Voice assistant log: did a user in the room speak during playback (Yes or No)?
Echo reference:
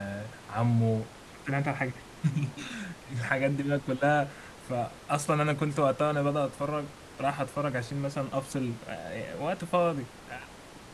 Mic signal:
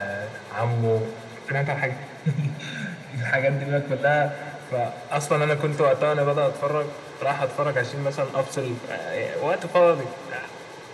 No